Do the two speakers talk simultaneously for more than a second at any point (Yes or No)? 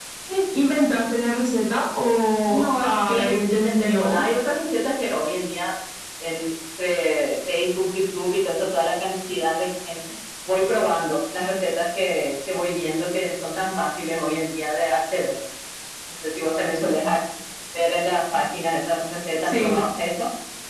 Yes